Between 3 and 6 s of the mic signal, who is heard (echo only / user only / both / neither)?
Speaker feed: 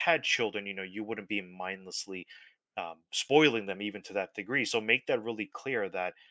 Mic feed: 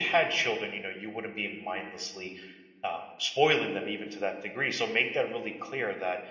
echo only